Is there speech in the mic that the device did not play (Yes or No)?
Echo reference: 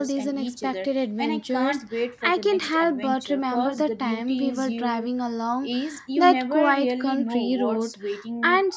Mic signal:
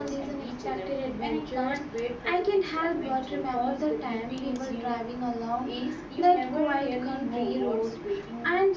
No